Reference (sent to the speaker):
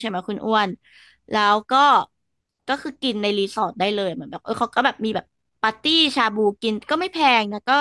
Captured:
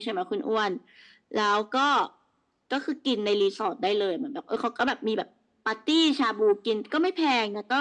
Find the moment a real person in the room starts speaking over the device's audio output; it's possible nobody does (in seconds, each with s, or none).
none